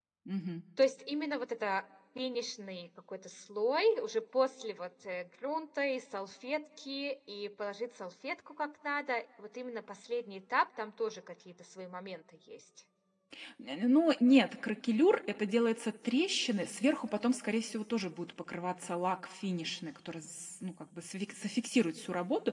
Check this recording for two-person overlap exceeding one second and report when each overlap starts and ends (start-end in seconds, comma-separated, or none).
none